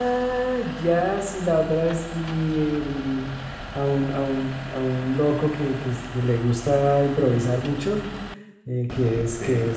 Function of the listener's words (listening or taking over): listening